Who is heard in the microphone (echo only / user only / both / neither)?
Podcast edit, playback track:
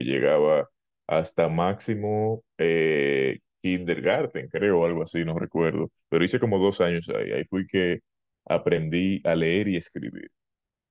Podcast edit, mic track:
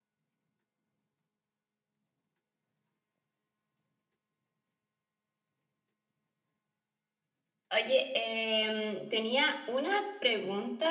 user only